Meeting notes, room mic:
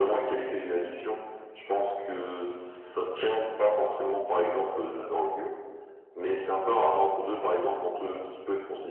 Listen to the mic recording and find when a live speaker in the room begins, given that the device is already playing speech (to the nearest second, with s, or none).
none